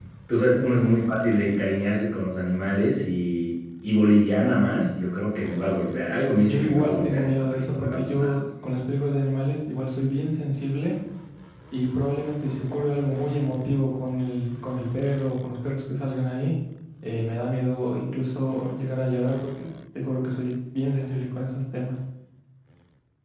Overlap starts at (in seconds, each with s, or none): 6.5 s